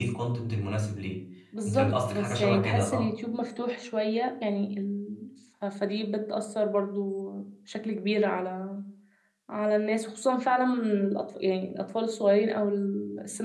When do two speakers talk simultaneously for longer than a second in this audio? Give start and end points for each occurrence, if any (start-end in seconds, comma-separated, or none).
1.7-3.1